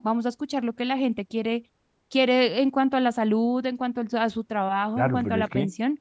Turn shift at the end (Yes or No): Yes